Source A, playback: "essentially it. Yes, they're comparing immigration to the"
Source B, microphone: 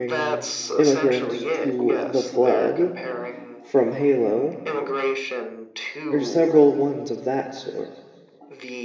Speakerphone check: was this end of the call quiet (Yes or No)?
No